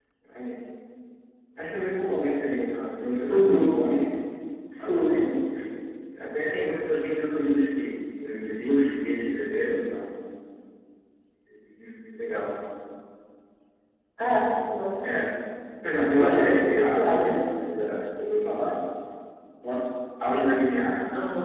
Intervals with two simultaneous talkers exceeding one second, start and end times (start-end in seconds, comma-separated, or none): 16.2-17.4